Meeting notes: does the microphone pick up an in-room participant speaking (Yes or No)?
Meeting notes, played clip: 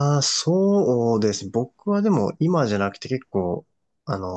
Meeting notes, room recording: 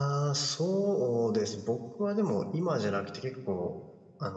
No